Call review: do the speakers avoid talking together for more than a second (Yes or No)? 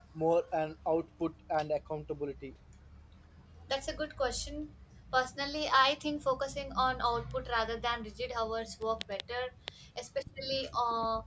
Yes